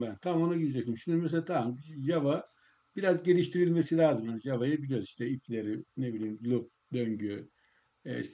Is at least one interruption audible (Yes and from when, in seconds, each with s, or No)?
No